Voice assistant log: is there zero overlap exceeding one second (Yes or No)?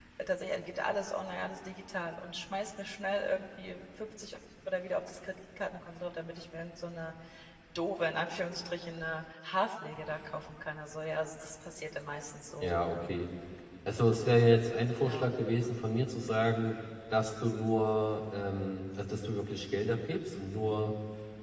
Yes